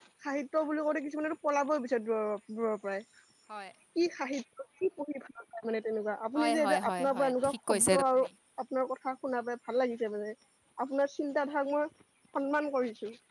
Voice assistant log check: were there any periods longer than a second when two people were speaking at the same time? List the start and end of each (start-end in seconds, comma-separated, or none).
6.4-8.0